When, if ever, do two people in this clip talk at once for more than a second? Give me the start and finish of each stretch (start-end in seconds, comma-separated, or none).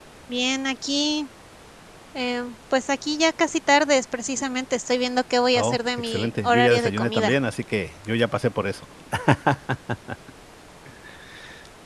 5.5-7.3